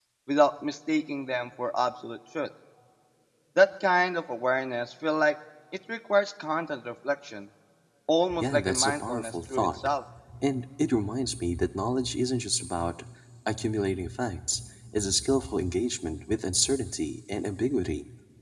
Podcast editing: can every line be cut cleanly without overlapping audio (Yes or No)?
No